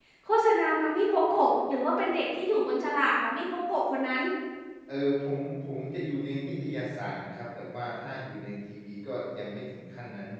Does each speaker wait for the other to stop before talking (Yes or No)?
Yes